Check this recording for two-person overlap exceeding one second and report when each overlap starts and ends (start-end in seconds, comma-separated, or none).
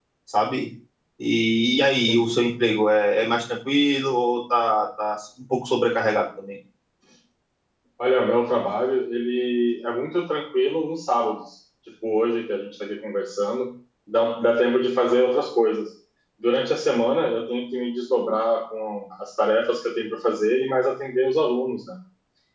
none